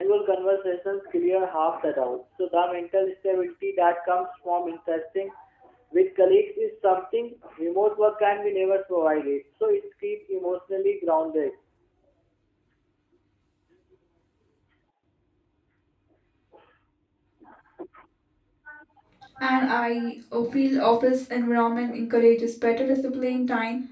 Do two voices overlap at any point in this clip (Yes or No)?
No